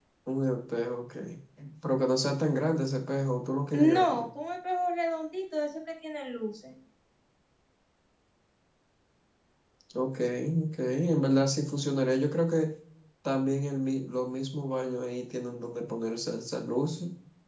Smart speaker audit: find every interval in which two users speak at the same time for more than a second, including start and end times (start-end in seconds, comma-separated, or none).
none